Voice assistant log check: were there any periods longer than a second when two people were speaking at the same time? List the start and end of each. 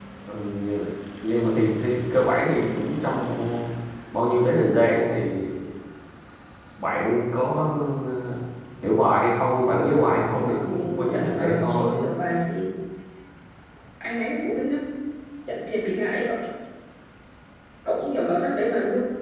10.2-12.0

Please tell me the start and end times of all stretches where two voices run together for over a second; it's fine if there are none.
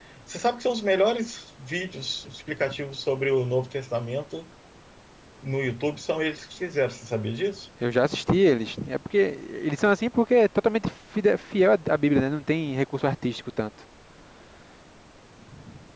none

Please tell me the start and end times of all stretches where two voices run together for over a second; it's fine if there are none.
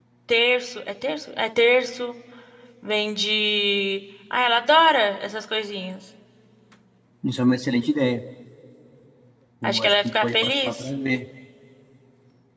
9.6-10.8

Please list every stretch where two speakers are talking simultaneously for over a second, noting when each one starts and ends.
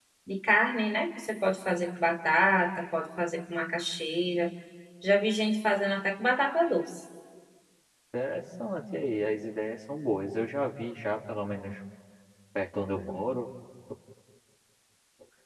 none

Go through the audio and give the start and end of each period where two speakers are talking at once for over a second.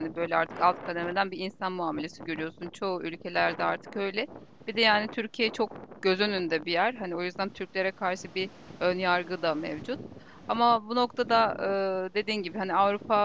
none

